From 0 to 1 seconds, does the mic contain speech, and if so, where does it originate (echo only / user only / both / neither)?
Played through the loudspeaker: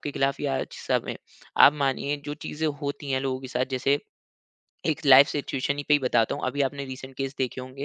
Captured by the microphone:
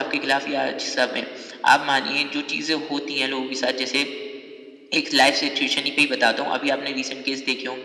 echo only